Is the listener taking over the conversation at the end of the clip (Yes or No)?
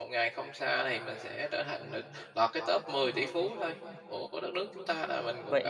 Yes